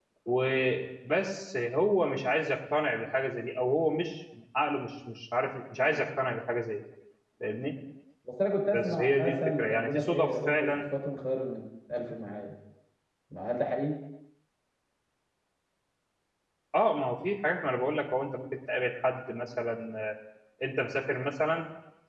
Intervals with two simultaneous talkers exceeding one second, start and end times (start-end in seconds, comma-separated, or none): 8.7-10.8